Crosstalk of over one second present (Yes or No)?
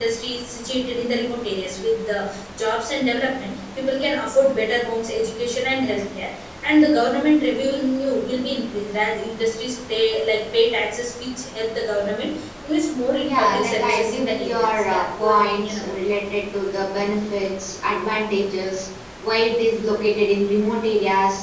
Yes